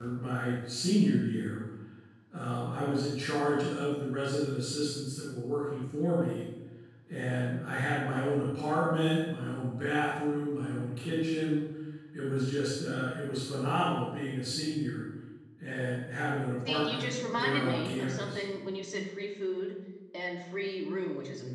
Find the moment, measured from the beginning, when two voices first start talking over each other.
16.6 s

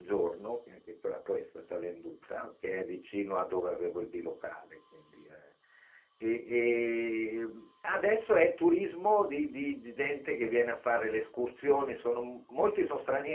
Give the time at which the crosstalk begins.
none

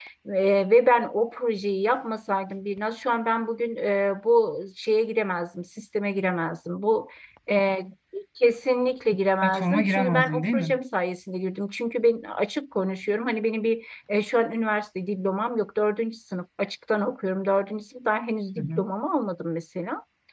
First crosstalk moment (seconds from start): 9.4 s

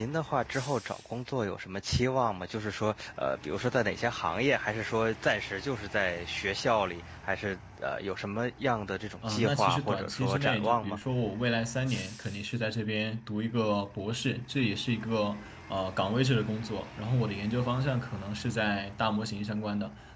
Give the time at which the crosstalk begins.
9.2 s

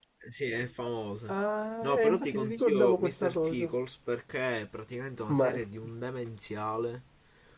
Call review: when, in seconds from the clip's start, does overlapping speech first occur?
1.8 s

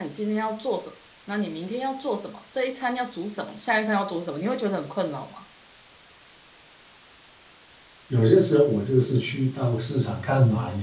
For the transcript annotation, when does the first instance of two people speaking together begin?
none

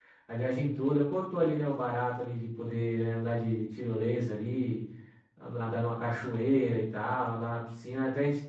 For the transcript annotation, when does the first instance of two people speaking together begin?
none

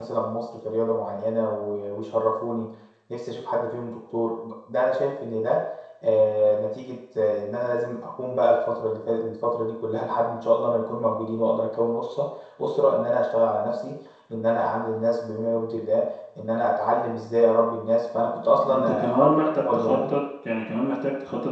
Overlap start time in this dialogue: 18.7 s

